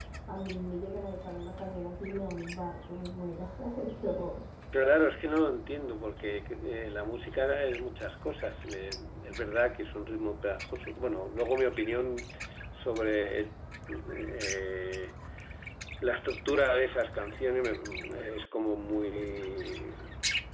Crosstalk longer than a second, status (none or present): none